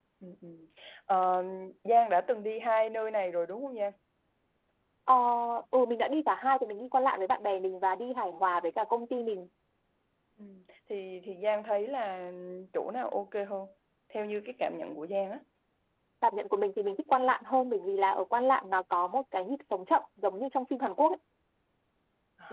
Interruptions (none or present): none